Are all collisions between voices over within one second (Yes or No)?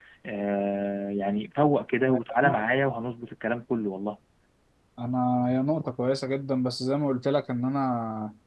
Yes